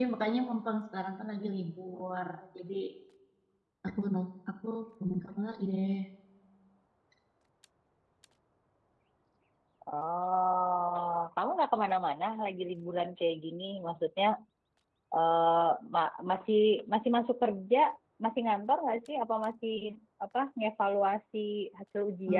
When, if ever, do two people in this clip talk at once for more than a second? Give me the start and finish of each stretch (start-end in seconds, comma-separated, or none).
none